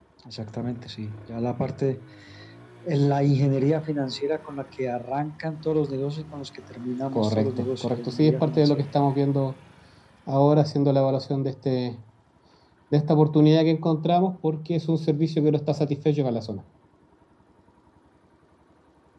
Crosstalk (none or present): present